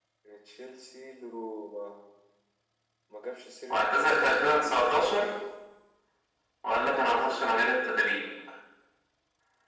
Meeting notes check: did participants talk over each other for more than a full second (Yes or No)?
Yes